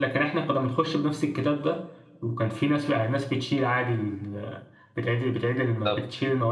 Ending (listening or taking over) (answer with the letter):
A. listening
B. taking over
A